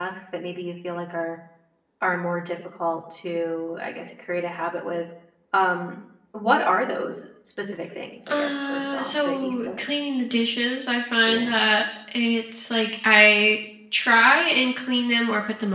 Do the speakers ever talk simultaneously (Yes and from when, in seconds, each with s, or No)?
Yes, from 8.3 s